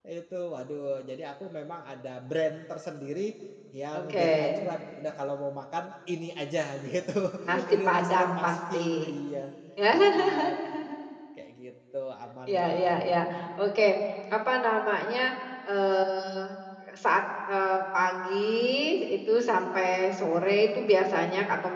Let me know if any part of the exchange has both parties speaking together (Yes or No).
Yes